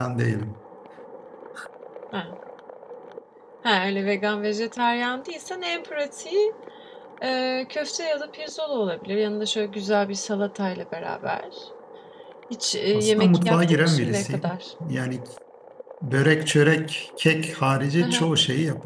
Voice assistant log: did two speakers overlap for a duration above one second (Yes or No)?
Yes